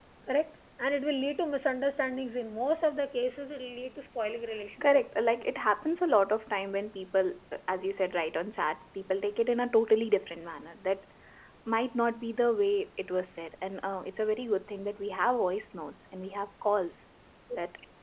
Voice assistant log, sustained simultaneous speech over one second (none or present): none